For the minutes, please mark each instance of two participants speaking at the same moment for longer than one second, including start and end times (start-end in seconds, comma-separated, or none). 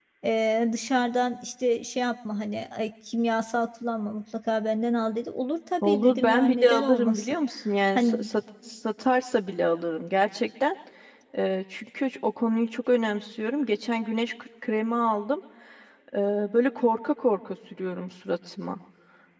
5.8-7.4